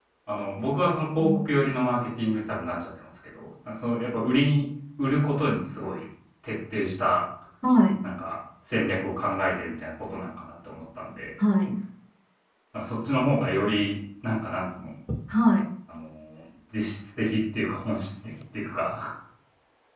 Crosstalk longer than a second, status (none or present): none